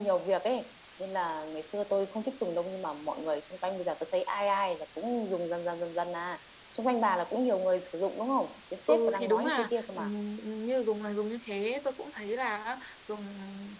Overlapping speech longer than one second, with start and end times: 8.9-10.1

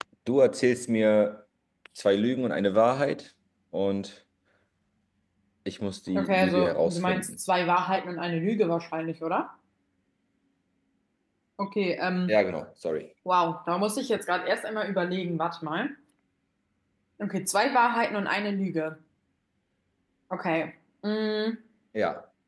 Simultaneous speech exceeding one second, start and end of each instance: 6.1-7.3

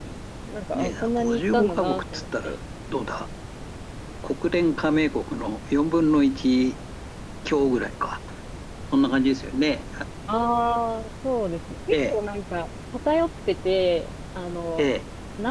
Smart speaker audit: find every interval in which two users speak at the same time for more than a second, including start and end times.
0.7-2.6

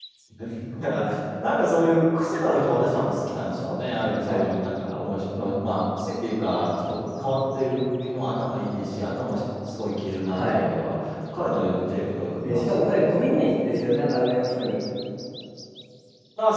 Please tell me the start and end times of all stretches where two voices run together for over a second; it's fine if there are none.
12.4-13.8

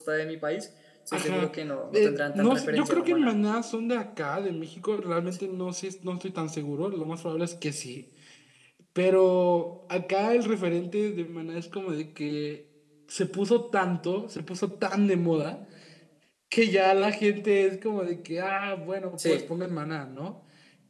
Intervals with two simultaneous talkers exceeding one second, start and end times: 1.9-3.3

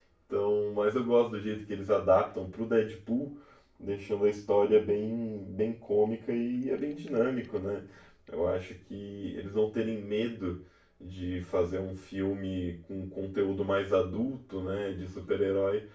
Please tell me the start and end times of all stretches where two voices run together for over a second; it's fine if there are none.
none

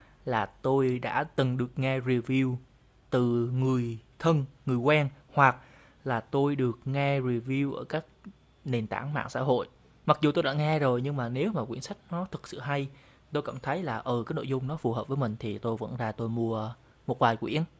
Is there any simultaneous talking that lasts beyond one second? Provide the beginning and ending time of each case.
none

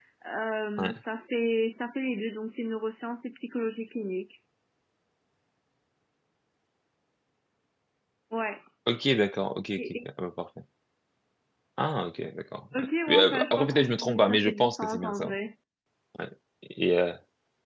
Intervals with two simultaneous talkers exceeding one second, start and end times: 12.7-15.3

